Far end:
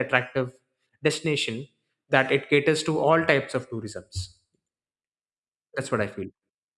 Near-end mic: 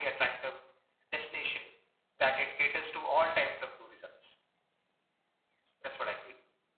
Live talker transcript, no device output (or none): none